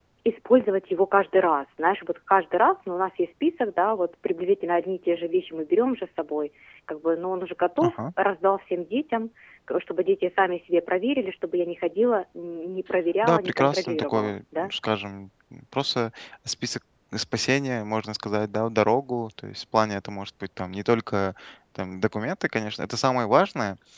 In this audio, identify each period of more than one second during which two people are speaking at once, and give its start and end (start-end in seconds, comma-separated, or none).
13.2-14.7